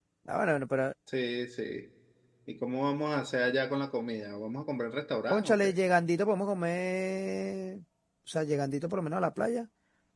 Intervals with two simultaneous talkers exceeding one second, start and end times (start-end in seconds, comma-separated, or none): none